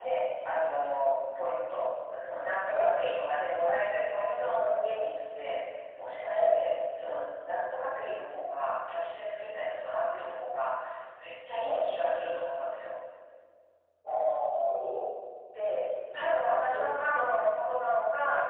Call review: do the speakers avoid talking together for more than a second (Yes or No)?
Yes